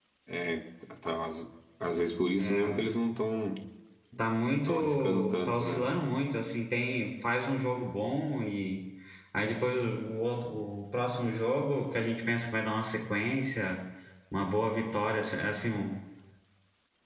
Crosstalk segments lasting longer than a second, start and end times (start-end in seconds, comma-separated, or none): 4.7-5.9